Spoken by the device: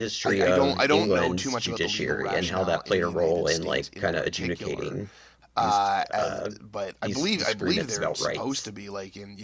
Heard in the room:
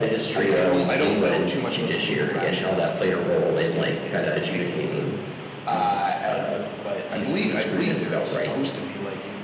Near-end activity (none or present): none